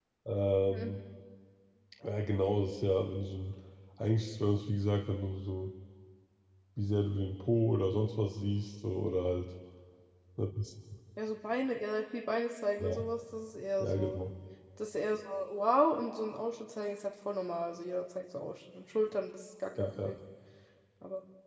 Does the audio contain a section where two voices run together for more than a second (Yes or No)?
No